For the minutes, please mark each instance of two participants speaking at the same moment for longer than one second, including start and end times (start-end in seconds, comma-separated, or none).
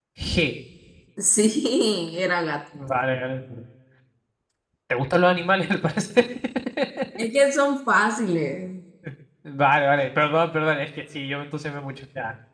none